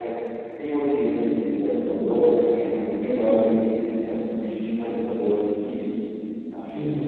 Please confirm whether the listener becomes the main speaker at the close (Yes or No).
Yes